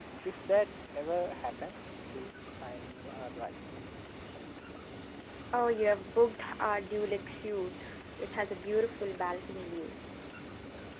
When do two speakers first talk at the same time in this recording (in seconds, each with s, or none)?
none